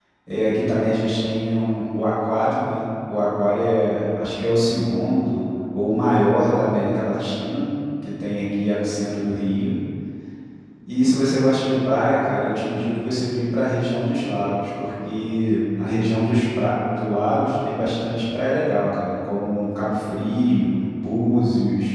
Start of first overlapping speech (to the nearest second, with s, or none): none